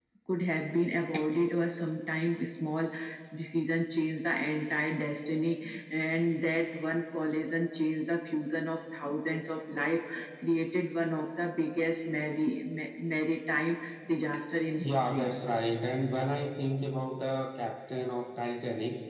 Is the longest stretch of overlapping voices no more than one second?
Yes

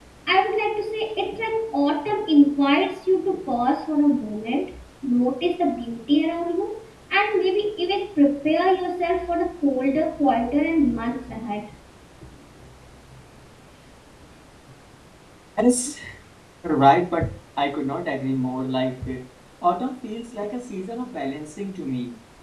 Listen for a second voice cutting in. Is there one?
No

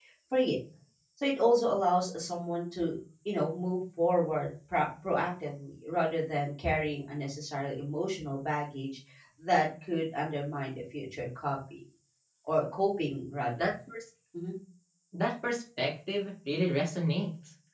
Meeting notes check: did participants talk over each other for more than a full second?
No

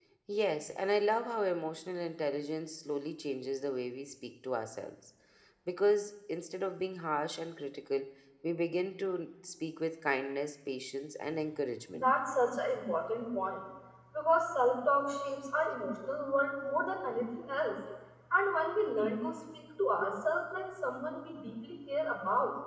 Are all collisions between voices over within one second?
Yes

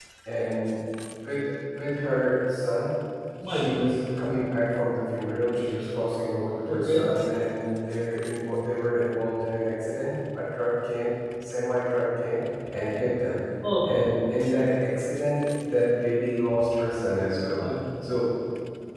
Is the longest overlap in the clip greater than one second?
No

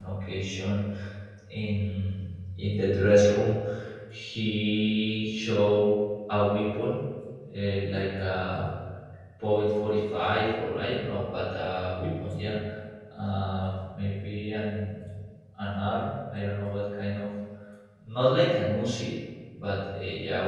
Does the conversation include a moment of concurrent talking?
No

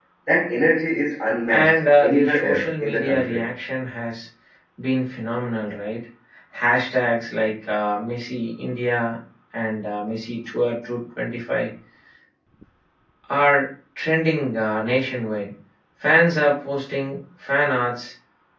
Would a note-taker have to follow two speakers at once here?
Yes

